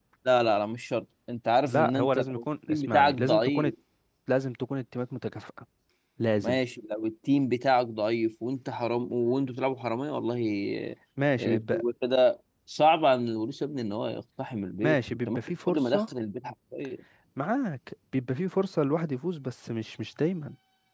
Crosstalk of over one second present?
Yes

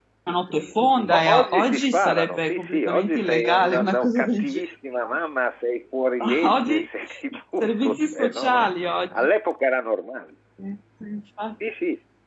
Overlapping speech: Yes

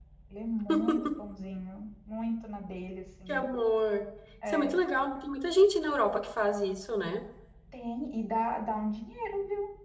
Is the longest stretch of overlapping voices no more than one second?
Yes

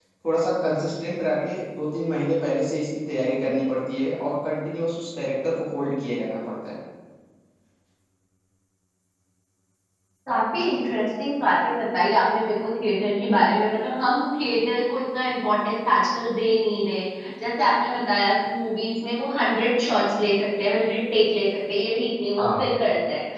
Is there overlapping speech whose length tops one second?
No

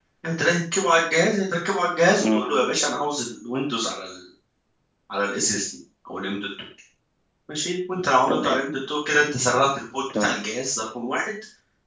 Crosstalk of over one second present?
No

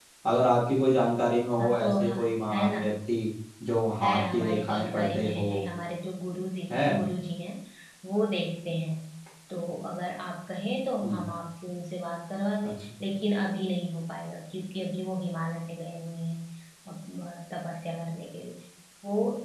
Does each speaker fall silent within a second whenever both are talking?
No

